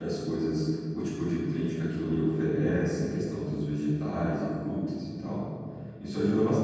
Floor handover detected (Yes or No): No